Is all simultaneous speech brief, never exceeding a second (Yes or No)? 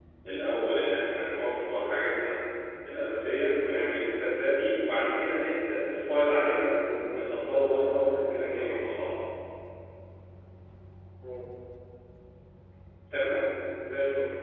No